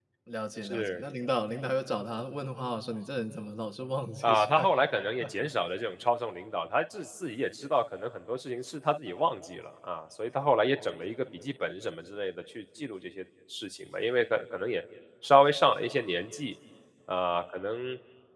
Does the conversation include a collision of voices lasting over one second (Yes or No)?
No